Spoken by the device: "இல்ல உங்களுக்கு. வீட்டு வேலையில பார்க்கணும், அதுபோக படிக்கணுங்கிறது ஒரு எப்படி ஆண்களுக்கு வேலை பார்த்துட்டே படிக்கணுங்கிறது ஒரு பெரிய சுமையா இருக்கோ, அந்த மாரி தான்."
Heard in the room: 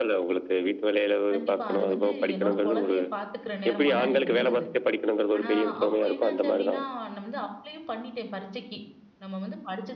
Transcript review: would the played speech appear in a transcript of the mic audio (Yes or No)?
Yes